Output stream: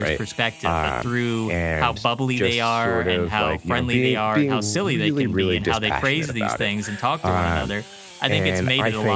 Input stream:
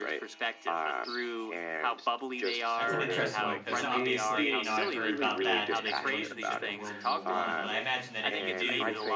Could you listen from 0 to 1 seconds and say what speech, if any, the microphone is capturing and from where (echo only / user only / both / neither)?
echo only